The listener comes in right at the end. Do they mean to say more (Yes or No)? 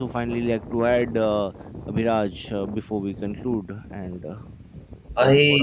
Yes